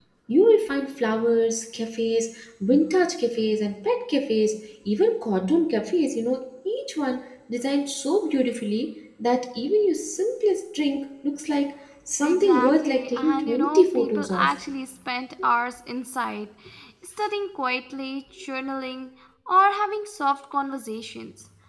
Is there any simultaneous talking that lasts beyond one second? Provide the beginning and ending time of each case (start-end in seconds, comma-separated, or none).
12.2-14.5